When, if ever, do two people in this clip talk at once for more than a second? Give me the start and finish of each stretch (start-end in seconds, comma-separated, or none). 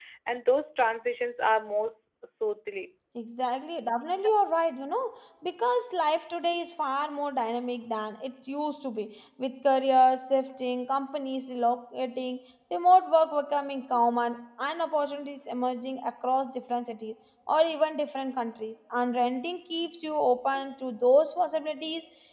none